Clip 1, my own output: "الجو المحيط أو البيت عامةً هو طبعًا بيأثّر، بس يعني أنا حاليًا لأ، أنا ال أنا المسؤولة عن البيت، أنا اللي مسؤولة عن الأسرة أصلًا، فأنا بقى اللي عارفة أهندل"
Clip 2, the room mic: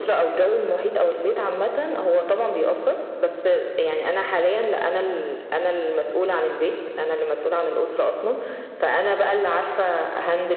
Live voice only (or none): none